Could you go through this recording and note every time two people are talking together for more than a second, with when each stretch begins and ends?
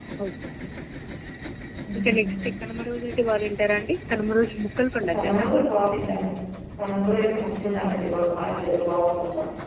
none

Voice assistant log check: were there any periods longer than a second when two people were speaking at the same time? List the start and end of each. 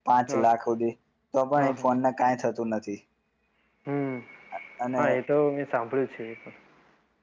none

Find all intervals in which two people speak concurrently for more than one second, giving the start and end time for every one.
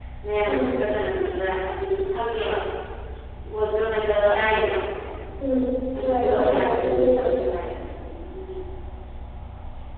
6.0-7.3

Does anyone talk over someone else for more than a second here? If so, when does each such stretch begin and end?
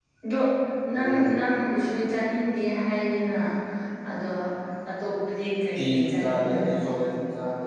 5.7-7.0

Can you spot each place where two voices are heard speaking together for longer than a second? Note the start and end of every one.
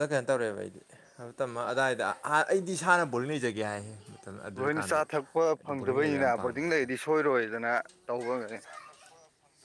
5.7-6.9

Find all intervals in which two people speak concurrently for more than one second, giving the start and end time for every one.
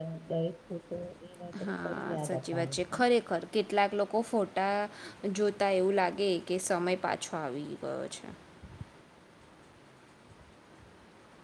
1.6-3.1

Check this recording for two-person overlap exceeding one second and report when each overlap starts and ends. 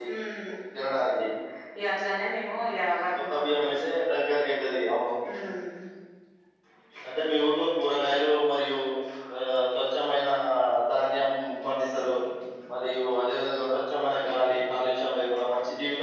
none

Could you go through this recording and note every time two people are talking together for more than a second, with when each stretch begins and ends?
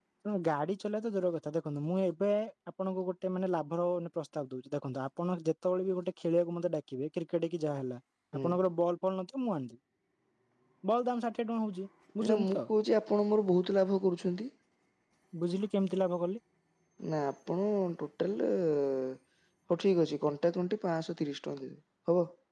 none

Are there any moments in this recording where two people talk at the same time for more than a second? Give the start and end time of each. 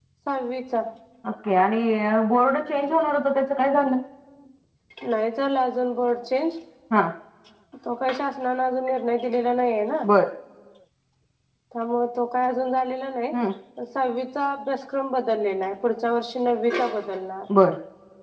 none

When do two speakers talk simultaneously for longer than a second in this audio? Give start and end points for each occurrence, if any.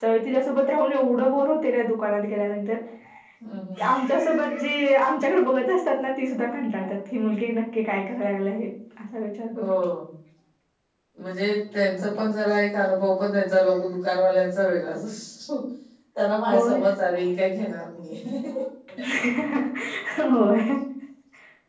none

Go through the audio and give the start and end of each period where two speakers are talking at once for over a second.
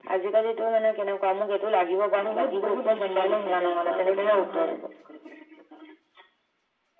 2.2-4.8

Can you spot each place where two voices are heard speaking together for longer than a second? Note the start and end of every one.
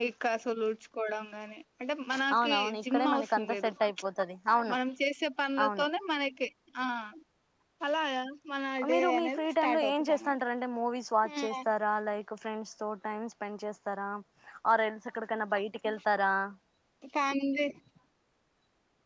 2.4-3.7, 8.9-10.4

